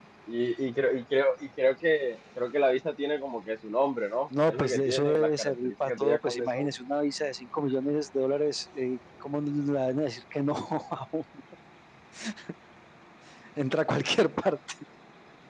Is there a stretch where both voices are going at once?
Yes, from 4.3 s

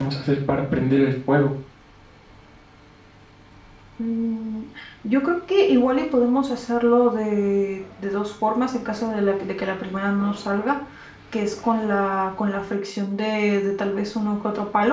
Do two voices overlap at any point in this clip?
No

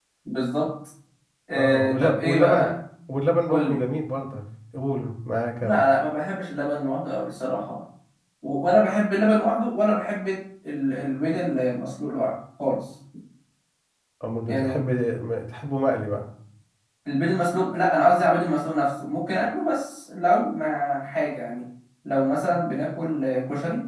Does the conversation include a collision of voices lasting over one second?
Yes, from 1.6 s

